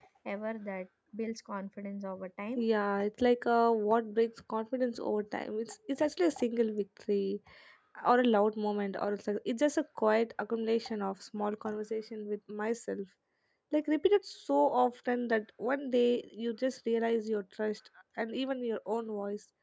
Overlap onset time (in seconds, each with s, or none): none